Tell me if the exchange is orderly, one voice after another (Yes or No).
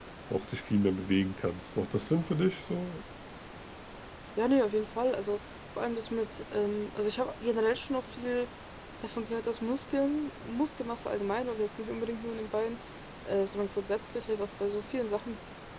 Yes